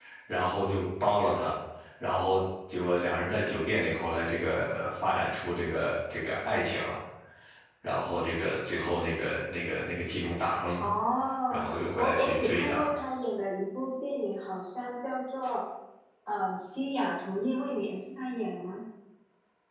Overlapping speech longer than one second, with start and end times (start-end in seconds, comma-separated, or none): 11.5-12.8